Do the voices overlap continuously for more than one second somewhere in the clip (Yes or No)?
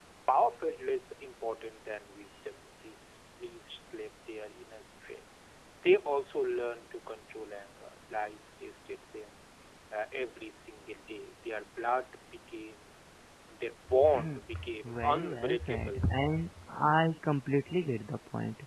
Yes